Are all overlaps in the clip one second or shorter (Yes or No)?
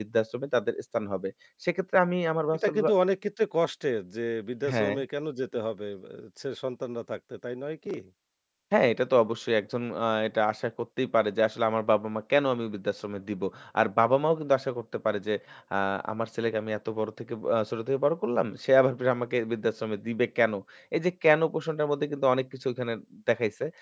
Yes